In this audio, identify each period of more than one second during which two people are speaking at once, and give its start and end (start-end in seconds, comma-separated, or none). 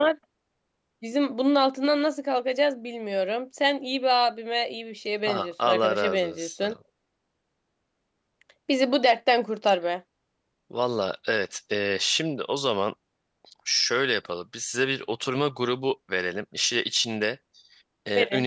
5.2-6.7